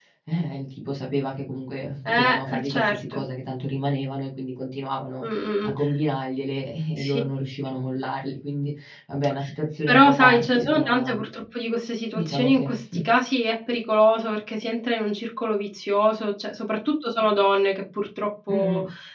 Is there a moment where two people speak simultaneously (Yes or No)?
Yes